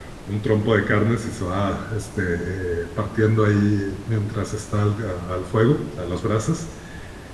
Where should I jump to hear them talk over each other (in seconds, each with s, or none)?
none